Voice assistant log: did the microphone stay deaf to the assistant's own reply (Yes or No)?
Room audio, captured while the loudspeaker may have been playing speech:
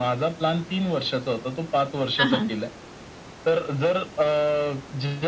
No